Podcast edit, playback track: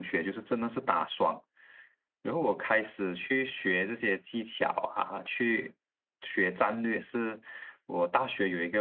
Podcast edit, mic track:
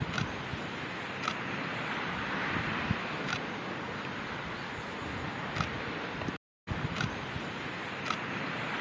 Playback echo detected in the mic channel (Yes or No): No